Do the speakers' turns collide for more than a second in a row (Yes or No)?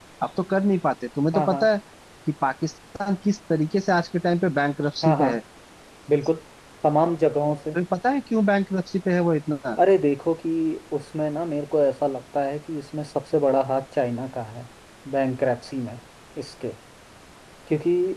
No